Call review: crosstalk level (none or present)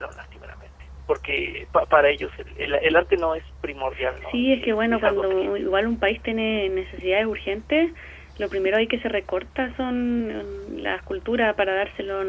present